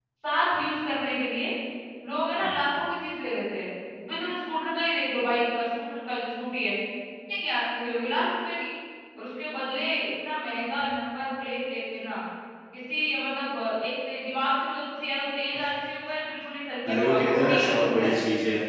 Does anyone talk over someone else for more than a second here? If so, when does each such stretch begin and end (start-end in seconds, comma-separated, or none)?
16.9-18.2